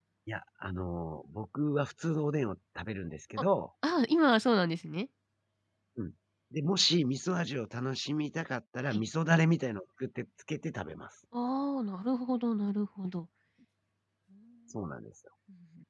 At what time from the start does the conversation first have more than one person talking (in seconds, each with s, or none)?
none